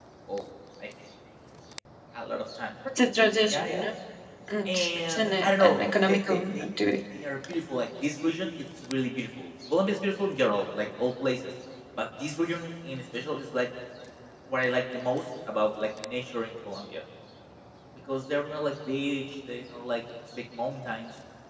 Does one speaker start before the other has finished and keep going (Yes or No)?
Yes